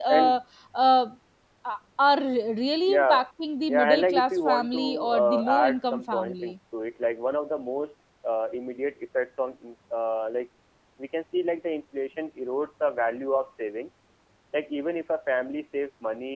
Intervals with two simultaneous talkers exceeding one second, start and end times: 3.7-6.5

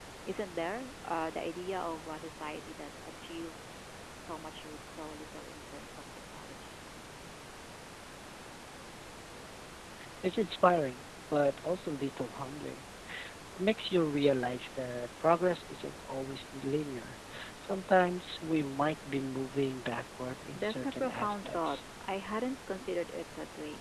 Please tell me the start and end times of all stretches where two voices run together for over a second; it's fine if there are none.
20.6-21.8

